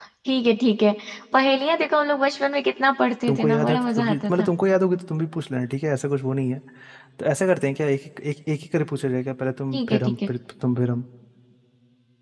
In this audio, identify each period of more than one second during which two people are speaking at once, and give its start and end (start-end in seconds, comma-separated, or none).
3.3-4.5